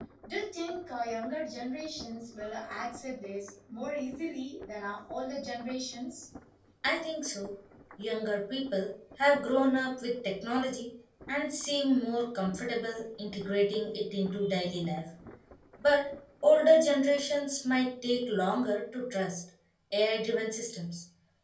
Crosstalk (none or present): none